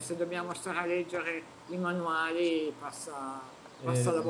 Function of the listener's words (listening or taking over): listening